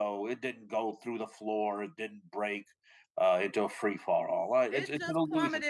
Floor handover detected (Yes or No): Yes